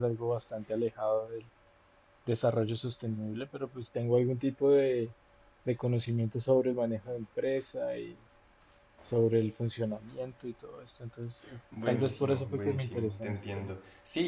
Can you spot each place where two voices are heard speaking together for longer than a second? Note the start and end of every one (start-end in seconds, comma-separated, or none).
11.9-13.7